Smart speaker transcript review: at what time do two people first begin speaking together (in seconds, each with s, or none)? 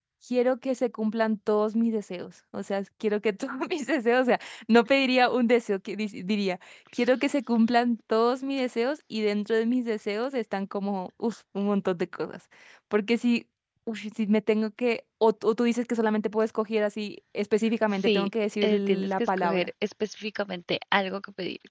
18.0 s